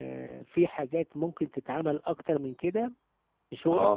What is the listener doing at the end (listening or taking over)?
taking over